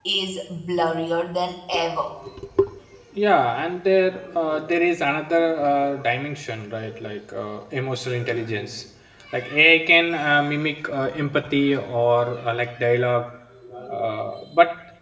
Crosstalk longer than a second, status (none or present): none